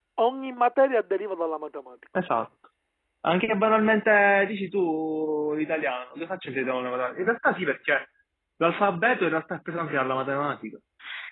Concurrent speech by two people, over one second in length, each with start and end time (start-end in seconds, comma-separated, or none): none